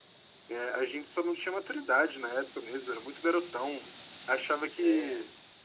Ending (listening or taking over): listening